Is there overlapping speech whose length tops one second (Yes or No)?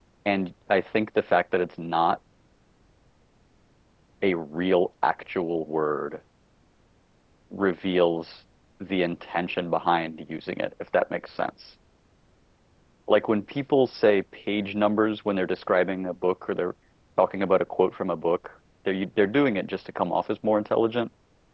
No